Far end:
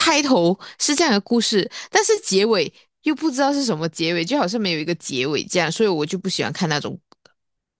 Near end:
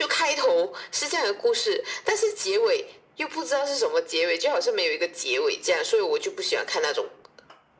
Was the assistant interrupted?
No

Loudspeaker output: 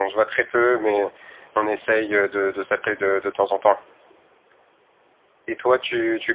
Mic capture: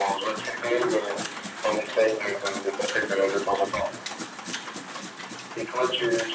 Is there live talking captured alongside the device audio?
No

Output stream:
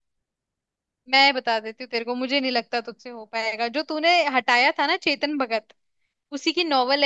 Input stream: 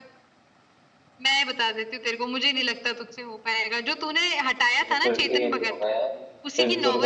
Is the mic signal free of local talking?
No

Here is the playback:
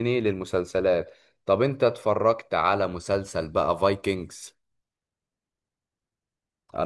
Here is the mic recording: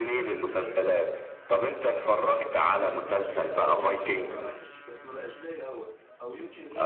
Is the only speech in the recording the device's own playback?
No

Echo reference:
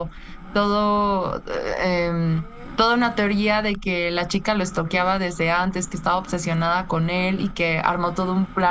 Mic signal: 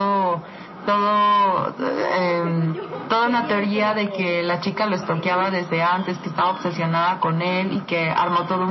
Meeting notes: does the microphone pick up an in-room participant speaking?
Yes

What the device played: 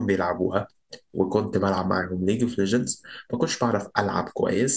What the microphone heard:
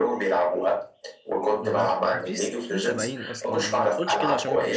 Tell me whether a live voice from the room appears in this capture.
Yes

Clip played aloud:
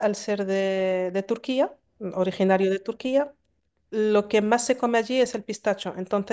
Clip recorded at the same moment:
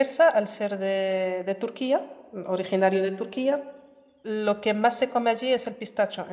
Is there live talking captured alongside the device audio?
No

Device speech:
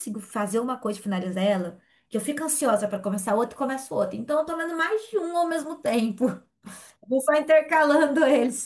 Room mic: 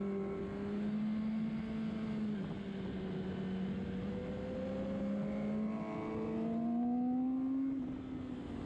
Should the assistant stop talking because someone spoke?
No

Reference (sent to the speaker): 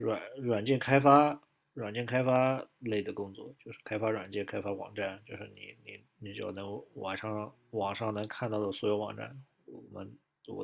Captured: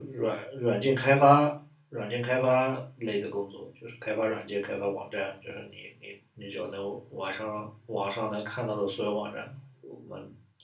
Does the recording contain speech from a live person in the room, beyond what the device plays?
No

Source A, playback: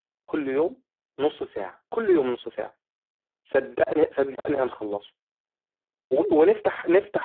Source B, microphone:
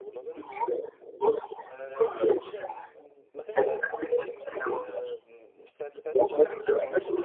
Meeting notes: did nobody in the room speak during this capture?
No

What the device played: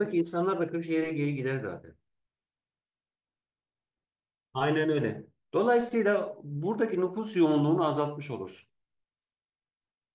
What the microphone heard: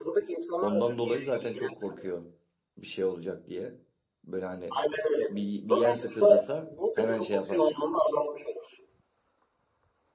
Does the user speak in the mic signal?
Yes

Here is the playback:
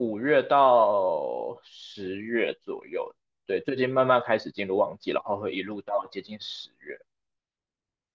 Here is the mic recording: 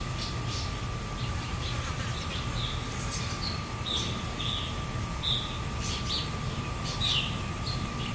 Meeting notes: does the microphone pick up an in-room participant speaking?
No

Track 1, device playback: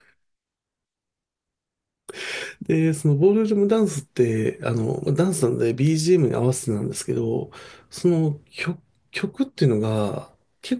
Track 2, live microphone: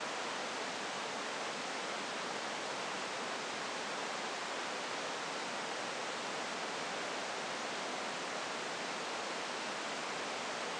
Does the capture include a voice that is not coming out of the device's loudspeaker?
No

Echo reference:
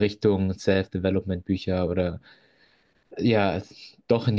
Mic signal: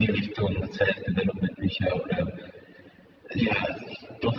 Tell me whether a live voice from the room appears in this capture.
No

